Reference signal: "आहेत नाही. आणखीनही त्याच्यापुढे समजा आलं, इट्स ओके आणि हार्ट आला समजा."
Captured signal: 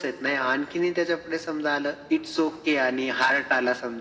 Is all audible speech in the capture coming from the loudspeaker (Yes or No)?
Yes